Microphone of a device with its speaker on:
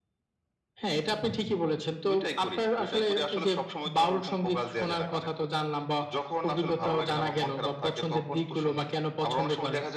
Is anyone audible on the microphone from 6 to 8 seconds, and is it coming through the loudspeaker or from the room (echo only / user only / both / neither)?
echo only